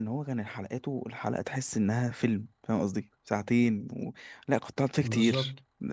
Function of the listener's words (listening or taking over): listening